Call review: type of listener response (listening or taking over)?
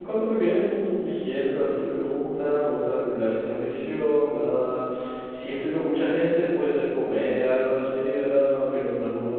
listening